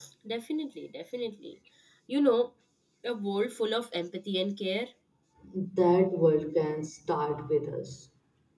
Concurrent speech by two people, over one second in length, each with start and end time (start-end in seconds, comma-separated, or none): none